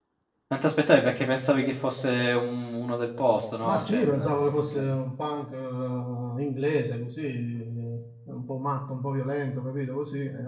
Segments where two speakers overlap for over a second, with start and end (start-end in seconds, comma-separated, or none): 3.6-4.9